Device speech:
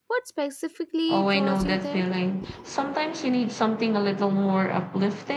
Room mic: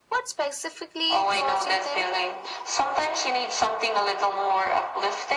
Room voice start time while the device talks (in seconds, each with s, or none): none